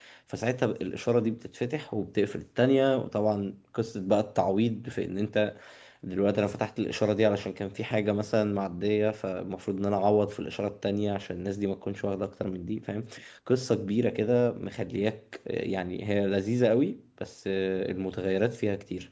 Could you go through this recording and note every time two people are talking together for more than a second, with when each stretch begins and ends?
none

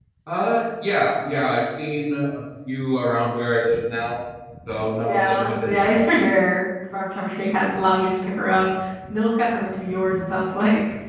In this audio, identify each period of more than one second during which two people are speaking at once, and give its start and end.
5.1-6.3

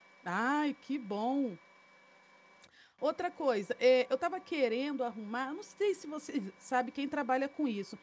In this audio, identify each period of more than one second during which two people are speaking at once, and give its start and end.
none

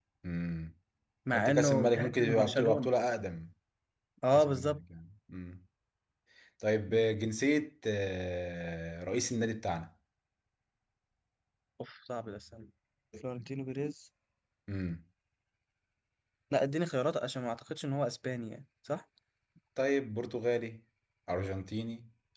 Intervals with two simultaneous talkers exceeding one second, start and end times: 1.3-2.9

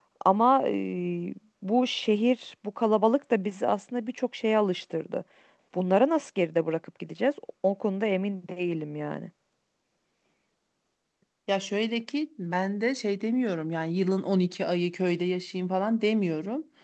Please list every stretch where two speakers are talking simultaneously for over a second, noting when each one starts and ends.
none

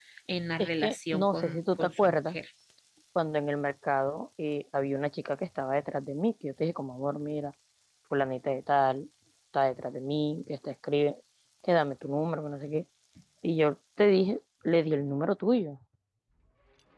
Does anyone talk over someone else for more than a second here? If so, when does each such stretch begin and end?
0.6-2.4

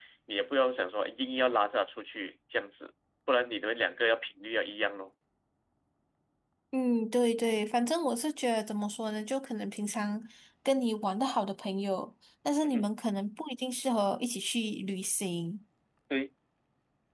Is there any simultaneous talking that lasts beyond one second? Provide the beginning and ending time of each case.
none

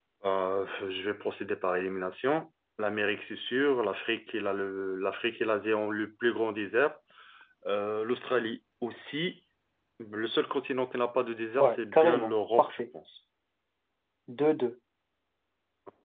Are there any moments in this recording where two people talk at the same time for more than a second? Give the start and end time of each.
11.6-12.8

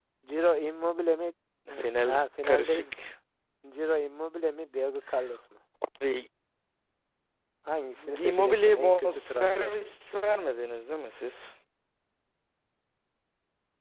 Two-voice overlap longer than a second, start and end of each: 1.7-3.0, 8.2-9.7

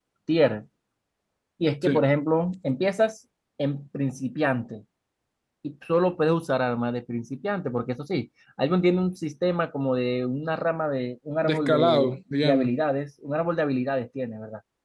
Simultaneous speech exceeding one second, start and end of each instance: 11.4-12.7

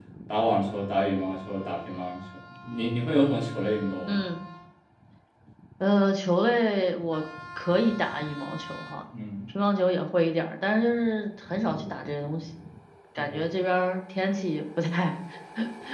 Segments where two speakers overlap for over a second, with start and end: none

